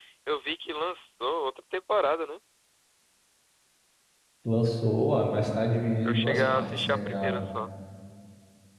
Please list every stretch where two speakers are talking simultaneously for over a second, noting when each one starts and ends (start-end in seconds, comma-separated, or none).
6.0-7.4